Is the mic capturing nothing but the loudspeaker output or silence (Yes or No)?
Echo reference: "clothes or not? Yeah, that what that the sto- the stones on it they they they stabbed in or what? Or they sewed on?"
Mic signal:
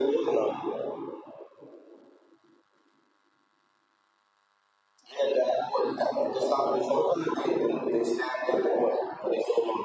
Yes